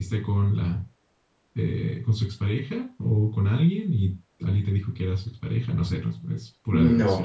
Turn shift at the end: Yes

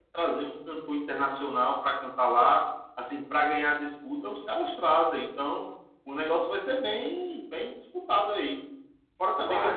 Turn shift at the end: No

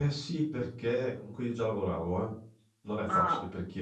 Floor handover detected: No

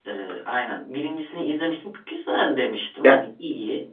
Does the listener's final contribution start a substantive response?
No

